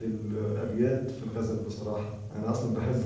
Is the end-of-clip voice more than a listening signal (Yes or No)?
No